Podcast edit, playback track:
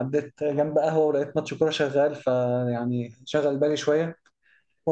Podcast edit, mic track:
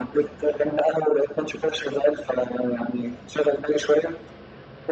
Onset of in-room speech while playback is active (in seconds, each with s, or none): none